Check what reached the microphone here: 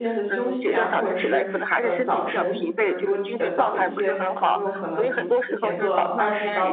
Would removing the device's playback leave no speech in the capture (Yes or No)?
No